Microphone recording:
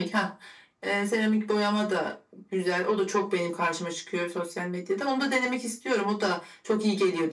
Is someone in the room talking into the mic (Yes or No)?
No